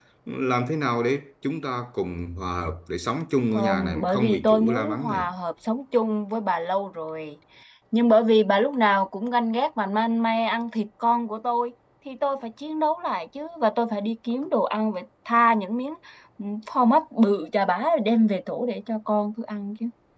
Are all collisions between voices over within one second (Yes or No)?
No